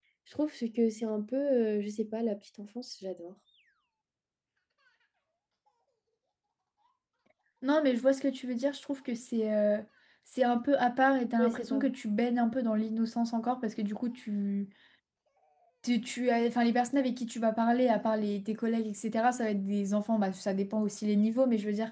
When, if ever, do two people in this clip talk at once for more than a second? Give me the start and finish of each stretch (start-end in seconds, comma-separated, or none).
none